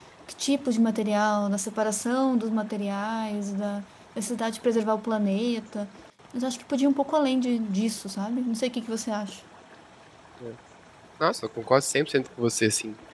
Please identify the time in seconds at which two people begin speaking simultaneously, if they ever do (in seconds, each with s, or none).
none